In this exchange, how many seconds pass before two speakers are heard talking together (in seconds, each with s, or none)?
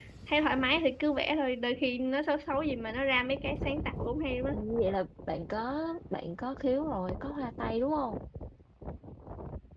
none